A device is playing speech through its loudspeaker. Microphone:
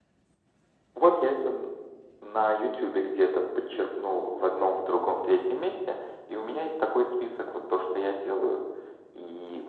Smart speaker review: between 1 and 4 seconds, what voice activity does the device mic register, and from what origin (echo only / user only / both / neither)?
echo only